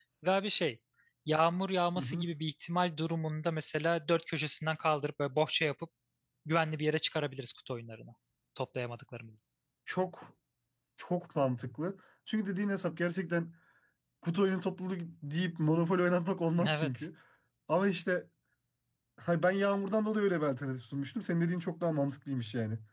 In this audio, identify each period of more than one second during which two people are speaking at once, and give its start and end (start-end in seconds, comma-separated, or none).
none